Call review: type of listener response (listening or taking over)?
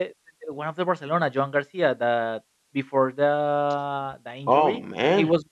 listening